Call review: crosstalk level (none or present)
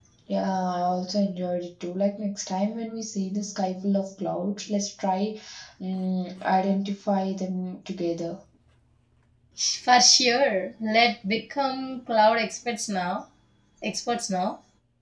none